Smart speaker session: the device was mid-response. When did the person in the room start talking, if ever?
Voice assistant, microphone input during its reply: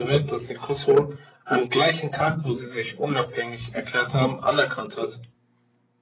none

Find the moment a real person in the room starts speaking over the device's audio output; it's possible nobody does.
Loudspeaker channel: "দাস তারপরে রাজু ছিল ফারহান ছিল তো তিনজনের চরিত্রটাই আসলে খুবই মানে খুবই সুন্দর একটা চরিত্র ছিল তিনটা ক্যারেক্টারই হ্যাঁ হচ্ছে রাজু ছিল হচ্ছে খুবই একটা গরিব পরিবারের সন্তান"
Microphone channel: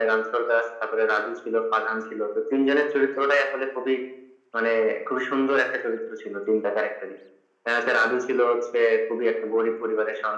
none

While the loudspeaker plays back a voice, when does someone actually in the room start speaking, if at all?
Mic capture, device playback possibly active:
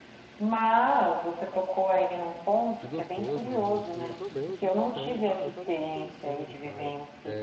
3 s

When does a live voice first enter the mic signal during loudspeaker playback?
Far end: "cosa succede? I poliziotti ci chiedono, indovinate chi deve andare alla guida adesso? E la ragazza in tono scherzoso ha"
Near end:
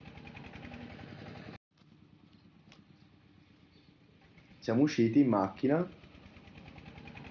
5 s

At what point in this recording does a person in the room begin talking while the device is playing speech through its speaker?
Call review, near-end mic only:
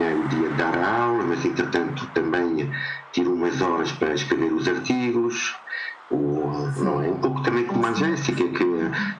7 s

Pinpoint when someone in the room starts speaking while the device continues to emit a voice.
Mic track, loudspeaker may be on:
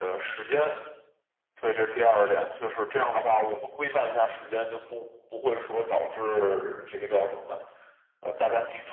none

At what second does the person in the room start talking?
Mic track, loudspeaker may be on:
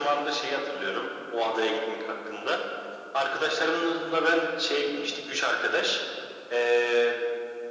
none

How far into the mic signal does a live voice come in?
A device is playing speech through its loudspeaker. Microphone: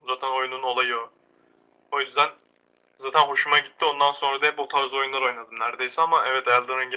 none

